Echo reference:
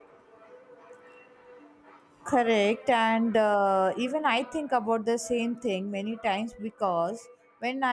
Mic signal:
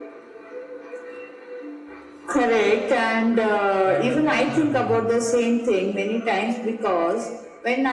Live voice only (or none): rather than journalism.